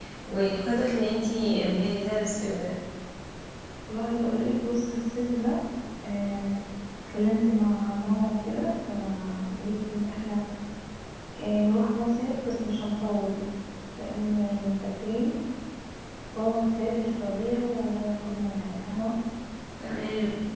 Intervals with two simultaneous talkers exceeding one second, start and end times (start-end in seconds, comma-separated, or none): none